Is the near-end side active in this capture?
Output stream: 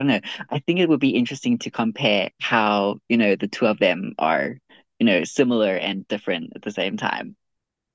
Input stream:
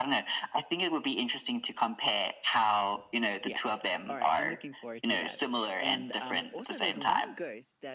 Yes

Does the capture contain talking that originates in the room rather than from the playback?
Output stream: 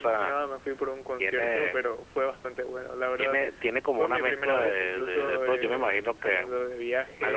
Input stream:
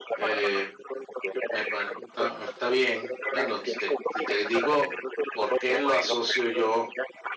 Yes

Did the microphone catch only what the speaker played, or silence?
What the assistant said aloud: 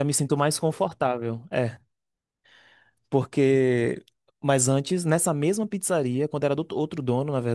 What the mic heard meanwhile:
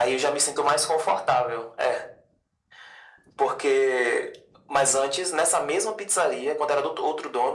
Yes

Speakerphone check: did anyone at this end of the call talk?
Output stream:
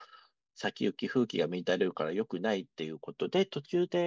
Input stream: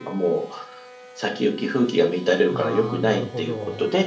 Yes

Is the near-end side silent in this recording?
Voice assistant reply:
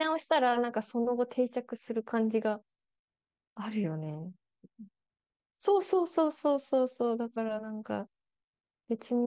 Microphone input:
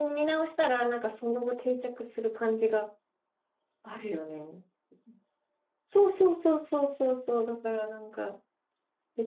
Yes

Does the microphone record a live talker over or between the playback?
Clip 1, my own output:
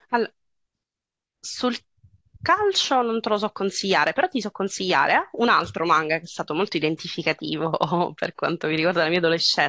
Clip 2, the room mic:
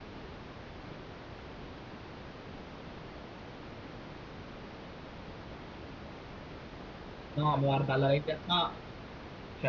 Yes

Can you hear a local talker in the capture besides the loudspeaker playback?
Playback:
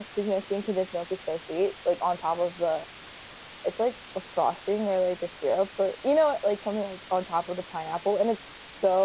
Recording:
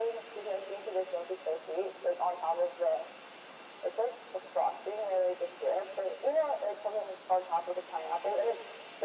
No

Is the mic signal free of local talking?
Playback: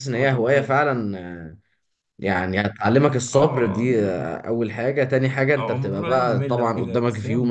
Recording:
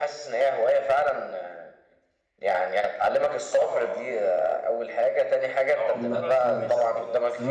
No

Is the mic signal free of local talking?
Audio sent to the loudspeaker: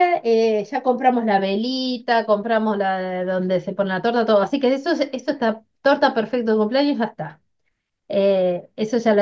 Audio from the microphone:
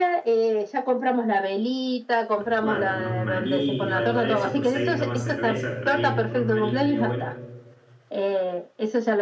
No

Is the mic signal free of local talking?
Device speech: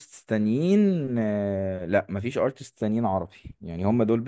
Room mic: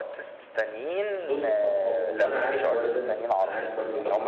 No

